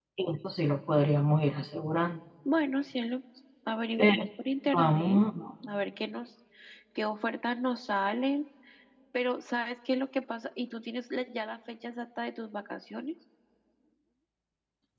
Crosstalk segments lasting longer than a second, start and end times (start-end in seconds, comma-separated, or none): none